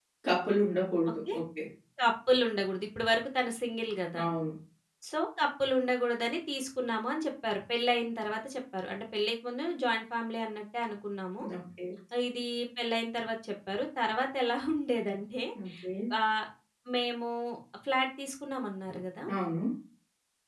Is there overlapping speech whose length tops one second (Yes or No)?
No